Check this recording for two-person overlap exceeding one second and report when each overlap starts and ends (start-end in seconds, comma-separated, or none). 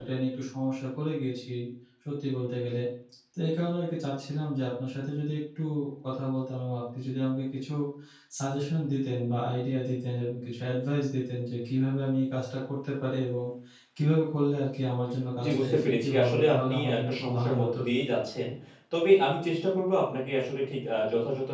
15.4-17.8